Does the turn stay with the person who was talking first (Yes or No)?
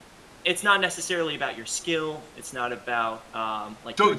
No